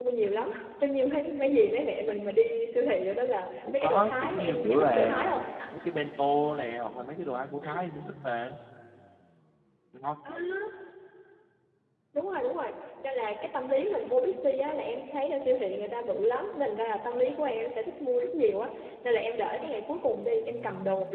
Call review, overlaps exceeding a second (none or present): present